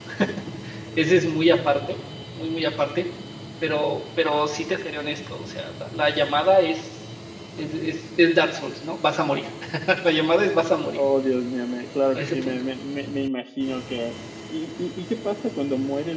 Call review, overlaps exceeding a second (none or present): none